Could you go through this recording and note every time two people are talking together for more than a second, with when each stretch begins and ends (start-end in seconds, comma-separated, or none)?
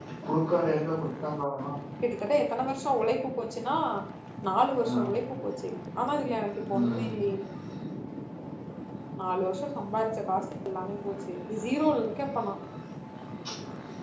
none